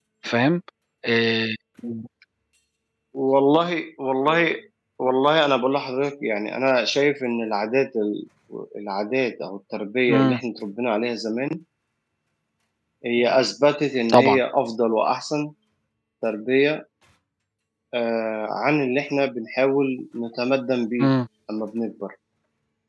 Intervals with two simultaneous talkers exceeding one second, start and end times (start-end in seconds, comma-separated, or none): none